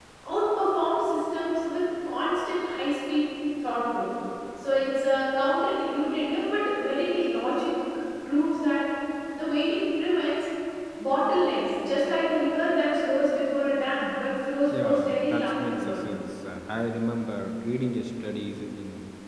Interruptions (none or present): present